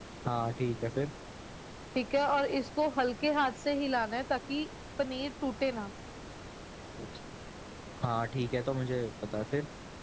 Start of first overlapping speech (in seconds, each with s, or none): none